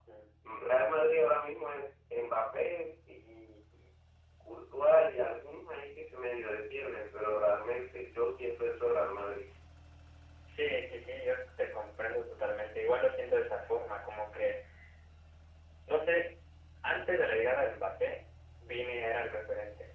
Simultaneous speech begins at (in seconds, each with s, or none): none